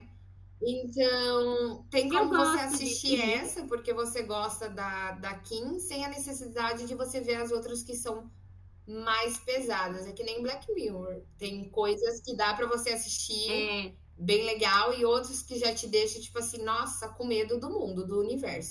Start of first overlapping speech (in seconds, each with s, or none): 2.1 s